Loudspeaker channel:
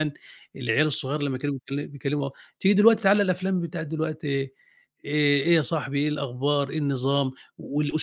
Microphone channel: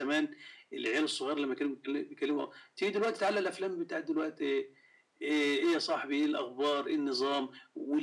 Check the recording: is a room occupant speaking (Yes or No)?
No